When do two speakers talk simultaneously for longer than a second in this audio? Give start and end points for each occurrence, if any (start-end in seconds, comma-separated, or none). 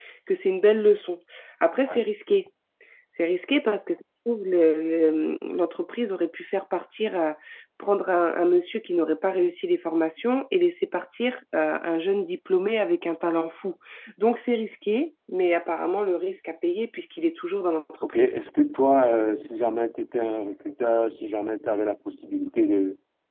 none